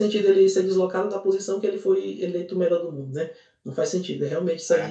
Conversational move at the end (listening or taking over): listening